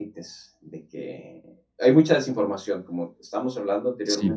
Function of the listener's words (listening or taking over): listening